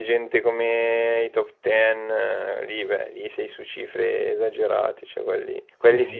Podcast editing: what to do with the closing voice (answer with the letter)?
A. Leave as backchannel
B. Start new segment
A